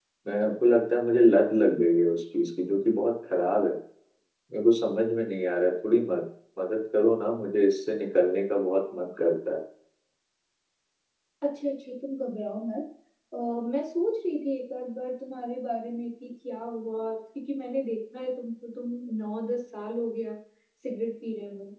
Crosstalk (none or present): none